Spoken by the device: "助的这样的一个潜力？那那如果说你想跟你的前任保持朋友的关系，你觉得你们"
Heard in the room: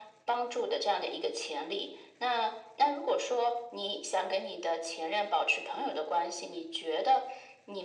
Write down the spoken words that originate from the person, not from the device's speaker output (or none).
none